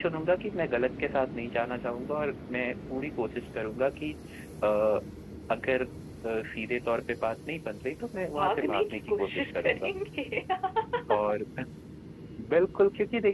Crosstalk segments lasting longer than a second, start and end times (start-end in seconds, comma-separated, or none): 8.4-9.9